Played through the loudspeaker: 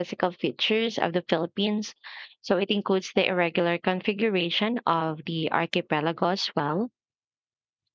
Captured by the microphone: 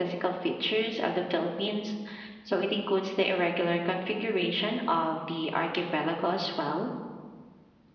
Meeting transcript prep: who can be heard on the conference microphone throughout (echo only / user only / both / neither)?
echo only